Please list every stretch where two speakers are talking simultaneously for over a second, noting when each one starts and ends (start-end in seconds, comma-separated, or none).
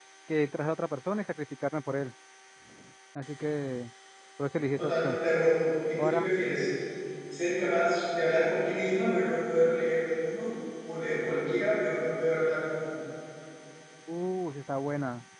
none